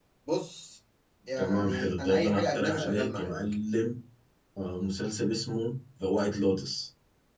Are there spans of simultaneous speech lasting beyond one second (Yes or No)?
Yes